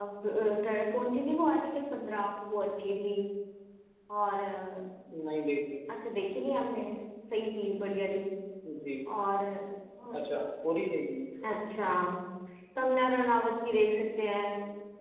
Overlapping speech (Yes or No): No